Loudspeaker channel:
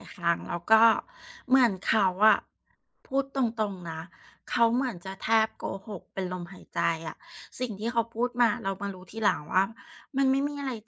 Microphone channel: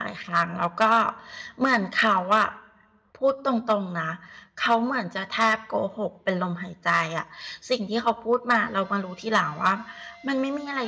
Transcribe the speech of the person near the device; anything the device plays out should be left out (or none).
none